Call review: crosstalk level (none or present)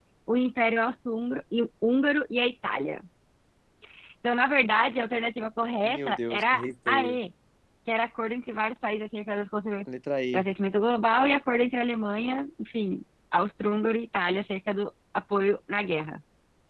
present